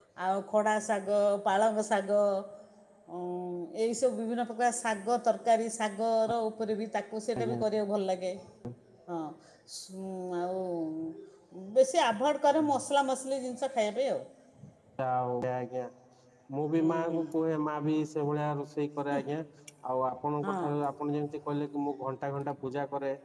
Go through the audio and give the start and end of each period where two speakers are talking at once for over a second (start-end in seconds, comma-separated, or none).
none